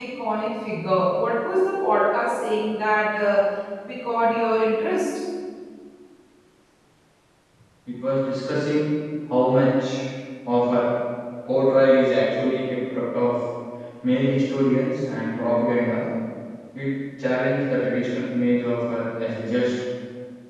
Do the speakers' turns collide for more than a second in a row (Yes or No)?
No